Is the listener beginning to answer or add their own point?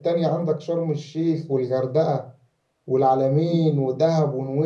No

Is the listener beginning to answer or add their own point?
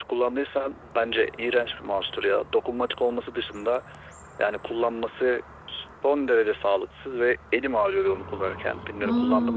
Yes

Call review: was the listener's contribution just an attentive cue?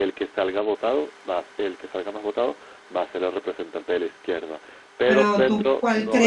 No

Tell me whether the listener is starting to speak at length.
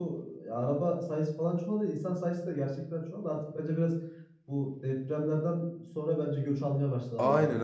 Yes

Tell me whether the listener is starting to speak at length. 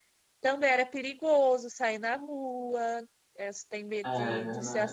No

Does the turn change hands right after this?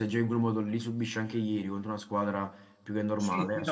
Yes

